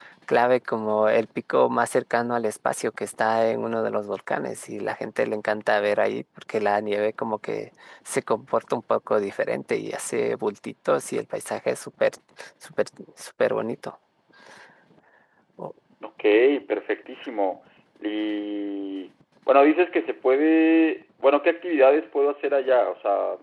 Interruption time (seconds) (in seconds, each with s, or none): none